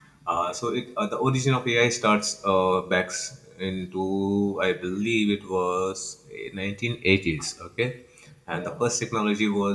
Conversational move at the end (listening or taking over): listening